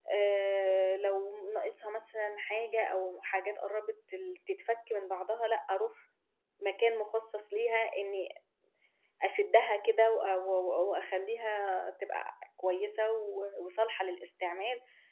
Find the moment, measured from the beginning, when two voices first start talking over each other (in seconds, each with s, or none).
none